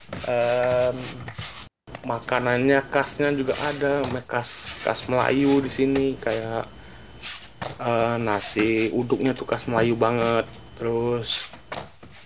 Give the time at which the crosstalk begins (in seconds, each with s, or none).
none